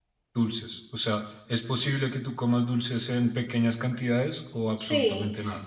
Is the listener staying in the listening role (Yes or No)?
No